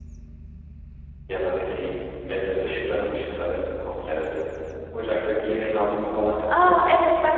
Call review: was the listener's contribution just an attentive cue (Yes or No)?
No